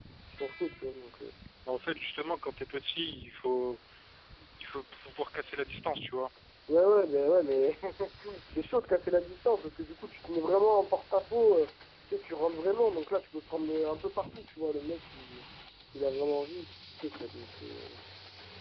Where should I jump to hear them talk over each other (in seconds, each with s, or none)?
none